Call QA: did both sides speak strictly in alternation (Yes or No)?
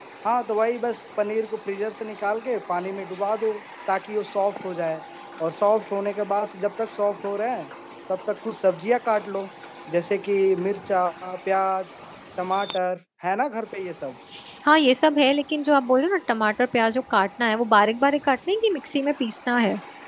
Yes